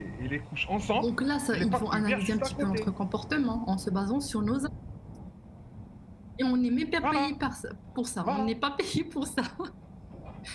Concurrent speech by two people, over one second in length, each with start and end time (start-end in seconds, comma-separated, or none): 1.5-2.9